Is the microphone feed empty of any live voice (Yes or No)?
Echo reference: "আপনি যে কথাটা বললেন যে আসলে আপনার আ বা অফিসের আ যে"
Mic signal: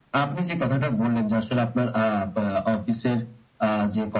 Yes